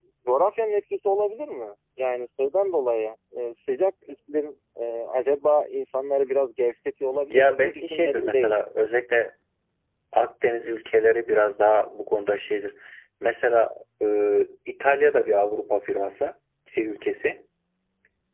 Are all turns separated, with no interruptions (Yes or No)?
No